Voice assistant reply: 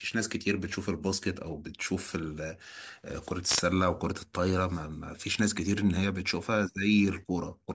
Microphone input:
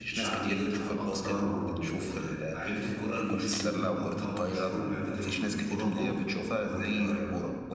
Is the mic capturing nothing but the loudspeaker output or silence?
No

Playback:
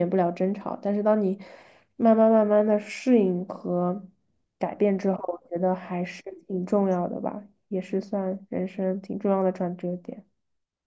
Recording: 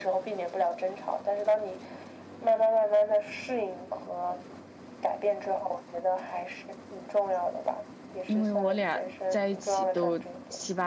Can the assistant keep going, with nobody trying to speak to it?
No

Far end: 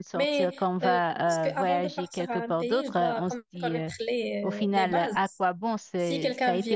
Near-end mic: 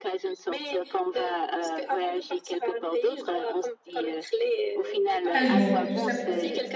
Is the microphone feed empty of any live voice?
No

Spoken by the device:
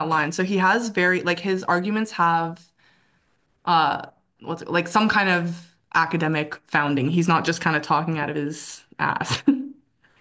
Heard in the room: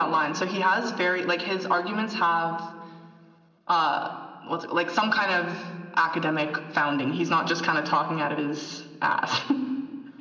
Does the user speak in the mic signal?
No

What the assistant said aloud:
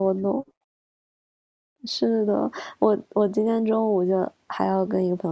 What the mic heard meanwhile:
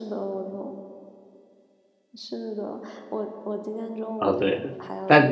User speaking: Yes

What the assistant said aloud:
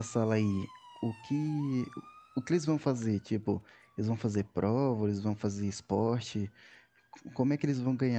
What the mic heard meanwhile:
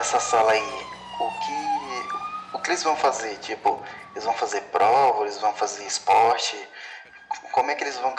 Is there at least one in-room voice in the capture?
No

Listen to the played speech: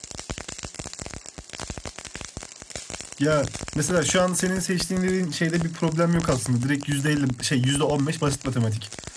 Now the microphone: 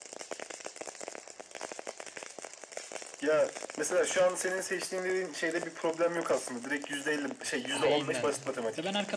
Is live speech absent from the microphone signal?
No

